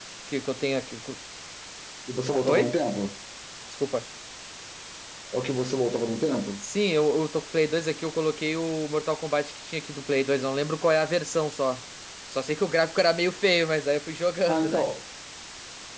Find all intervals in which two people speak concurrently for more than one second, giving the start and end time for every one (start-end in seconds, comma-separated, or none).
none